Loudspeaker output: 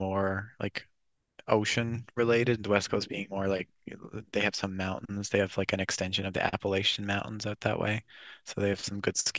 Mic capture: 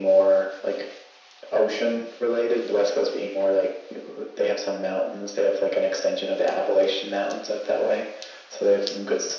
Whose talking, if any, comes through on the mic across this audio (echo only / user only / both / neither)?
echo only